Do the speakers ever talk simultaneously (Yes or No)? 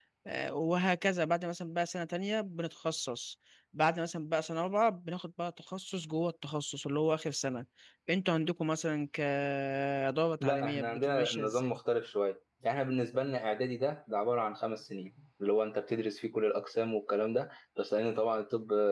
Yes